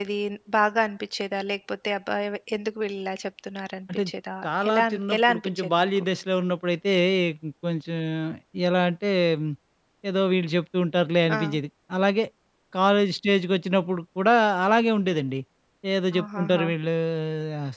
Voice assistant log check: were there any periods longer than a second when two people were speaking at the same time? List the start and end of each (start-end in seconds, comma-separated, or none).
4.4-6.0